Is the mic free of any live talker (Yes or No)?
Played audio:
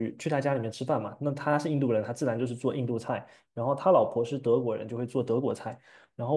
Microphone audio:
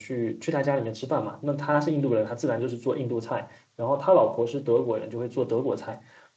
Yes